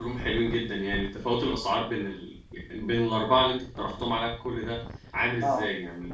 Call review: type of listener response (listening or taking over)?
taking over